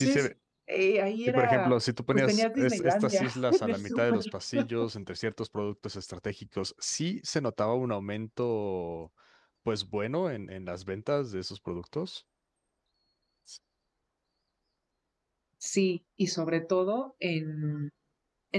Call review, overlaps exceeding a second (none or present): present